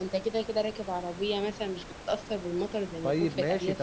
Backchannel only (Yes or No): No